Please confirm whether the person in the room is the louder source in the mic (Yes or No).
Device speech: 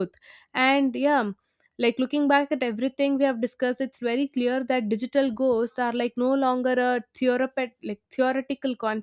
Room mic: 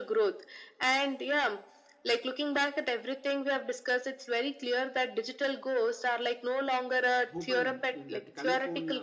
No